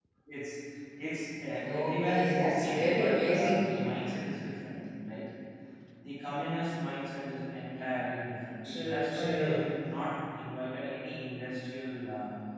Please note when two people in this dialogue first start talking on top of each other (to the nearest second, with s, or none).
2 s